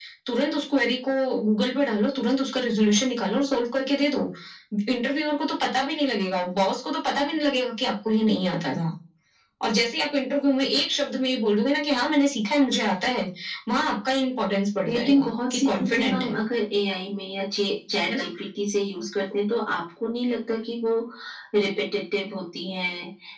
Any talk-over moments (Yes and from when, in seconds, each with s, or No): Yes, from 14.8 s